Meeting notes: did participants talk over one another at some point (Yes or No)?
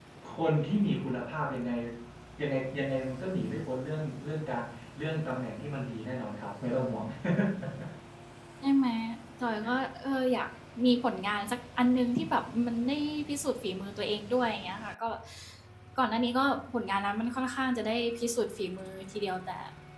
No